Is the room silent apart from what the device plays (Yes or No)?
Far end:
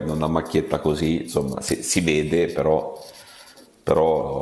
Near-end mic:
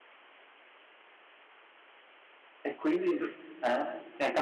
No